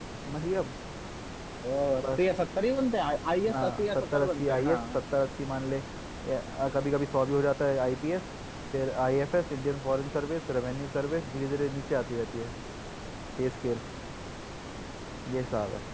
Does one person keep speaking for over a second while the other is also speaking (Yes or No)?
Yes